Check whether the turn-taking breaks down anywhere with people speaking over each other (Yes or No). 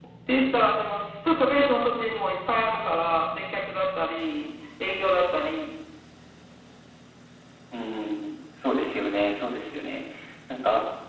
No